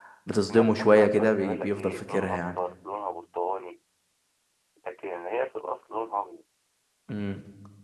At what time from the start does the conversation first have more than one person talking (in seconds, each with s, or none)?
0.5 s